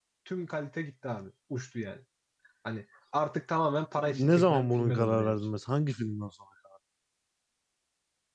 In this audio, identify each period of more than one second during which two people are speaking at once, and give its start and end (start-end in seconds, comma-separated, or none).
4.1-5.4